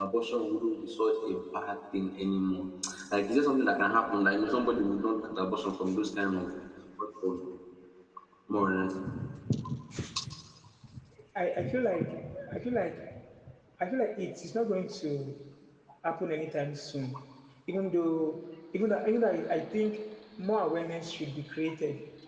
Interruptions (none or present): none